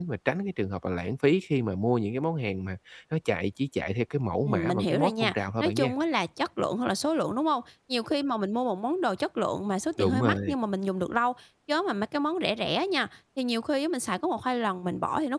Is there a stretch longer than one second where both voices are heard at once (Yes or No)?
Yes